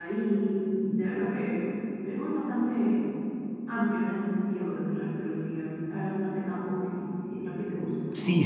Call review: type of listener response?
taking over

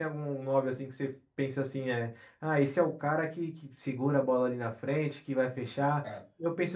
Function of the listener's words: listening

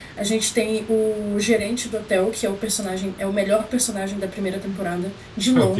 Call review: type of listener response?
listening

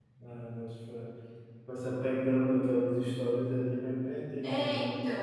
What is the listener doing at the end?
taking over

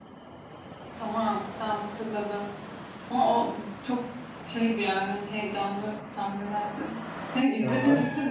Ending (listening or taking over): listening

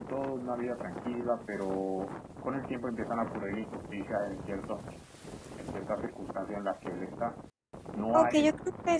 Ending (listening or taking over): taking over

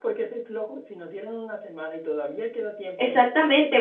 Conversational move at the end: taking over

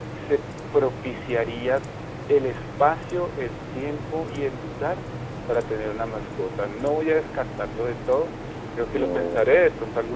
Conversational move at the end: listening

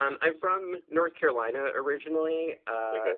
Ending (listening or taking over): listening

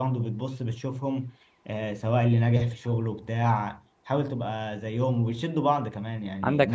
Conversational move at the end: listening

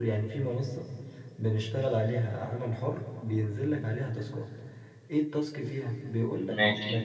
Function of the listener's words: listening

